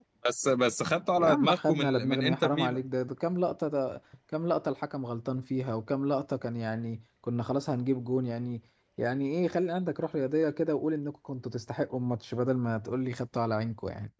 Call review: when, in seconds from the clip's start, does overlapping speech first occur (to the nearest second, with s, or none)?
1 s